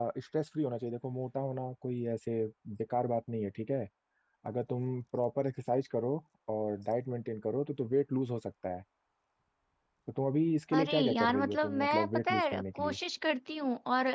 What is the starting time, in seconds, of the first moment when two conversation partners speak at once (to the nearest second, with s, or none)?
11 s